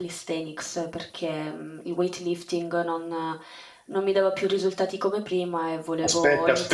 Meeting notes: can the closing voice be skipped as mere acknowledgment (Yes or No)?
No